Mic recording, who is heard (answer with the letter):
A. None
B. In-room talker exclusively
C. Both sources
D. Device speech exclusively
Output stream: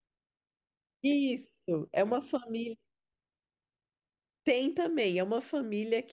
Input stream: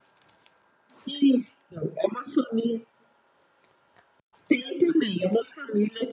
D